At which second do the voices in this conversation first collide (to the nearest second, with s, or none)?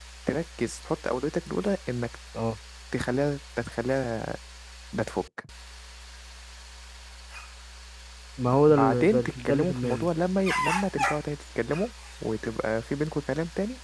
9 s